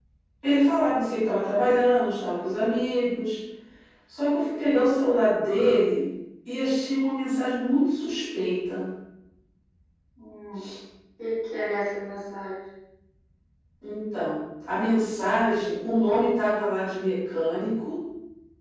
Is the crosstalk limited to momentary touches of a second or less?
Yes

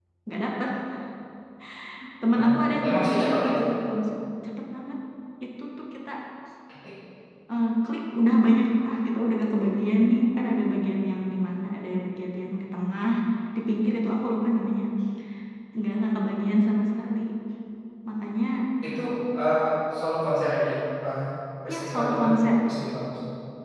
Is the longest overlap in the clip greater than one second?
Yes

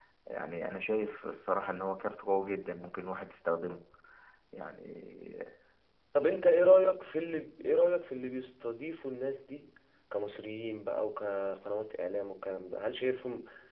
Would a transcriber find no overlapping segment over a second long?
Yes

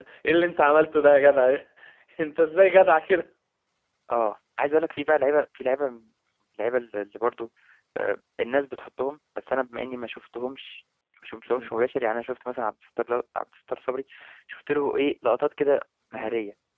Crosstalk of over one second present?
No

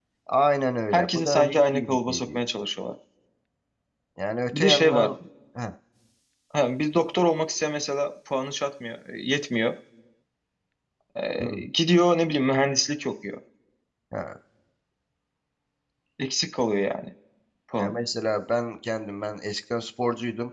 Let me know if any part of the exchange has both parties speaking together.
Yes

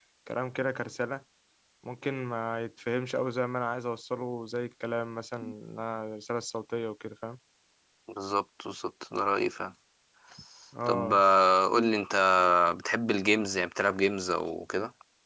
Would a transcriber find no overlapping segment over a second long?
Yes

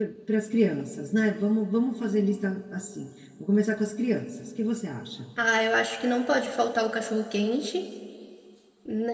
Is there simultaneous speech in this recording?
No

